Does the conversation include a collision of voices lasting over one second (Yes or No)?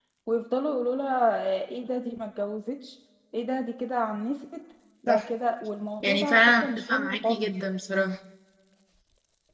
Yes